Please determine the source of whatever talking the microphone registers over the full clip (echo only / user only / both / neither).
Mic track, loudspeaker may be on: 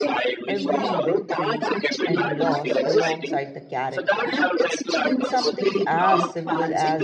both